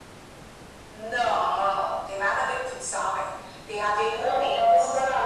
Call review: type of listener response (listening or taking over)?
taking over